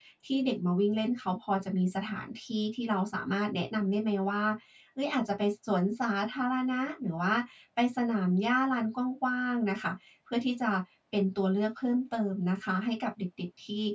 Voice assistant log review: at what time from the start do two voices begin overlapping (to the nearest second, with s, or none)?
none